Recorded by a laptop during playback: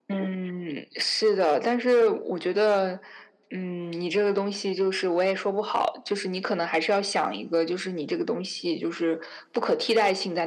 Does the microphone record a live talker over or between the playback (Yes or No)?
No